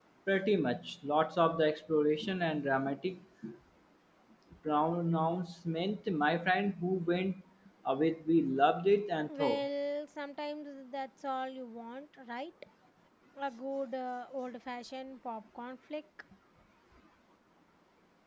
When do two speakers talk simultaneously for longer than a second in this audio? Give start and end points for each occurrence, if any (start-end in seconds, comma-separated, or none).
none